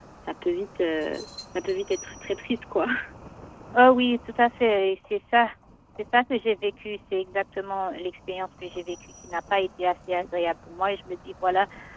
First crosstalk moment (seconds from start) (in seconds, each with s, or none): none